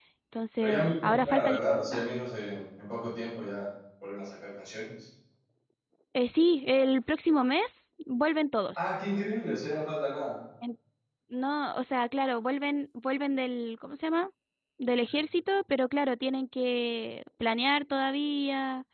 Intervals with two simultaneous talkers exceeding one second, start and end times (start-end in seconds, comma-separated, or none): 0.6-2.0